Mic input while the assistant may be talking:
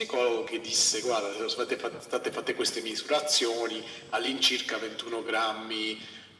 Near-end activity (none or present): none